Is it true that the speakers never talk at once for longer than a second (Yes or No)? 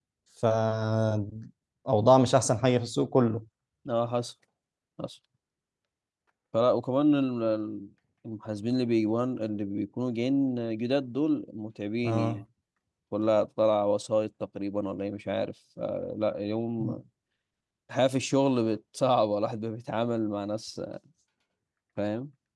Yes